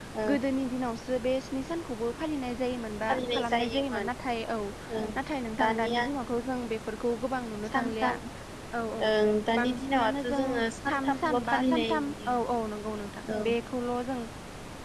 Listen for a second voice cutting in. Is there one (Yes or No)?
Yes